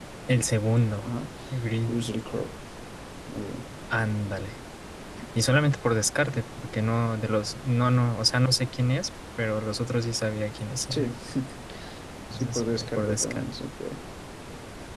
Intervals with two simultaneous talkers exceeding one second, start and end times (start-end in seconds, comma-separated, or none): 12.3-13.5